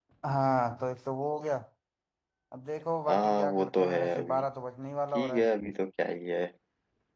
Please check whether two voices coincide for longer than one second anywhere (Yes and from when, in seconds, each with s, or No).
Yes, from 3.1 s